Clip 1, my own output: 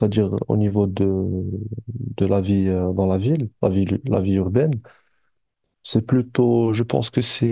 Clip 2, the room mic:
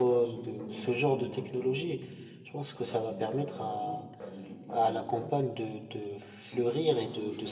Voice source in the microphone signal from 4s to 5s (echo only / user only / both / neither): both